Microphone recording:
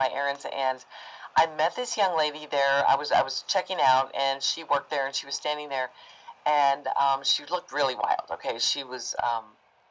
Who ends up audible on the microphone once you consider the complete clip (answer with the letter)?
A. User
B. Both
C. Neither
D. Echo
D